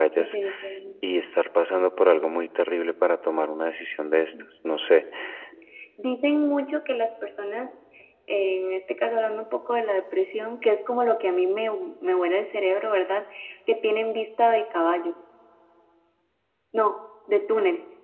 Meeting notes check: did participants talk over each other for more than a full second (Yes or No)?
No